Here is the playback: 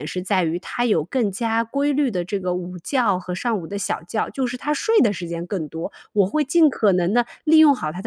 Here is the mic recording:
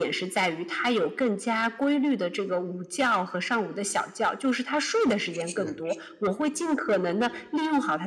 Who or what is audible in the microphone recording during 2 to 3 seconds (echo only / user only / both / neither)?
echo only